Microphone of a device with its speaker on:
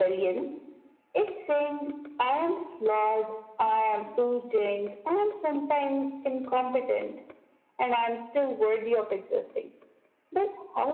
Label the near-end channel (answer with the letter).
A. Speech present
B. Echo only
B